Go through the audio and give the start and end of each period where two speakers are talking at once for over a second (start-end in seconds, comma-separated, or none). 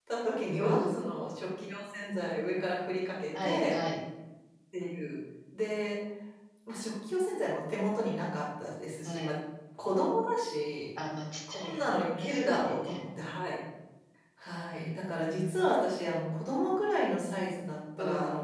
11.5-13.0